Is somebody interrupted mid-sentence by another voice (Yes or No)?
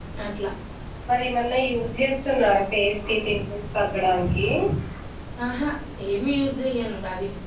No